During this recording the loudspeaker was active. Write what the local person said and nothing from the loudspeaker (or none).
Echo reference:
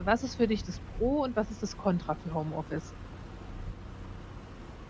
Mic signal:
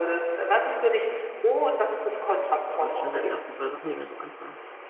Ja, das wären so die ersten 2 Sachen, die mir so einfallen.